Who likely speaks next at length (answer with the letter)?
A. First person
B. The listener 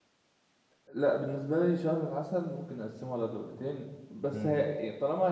A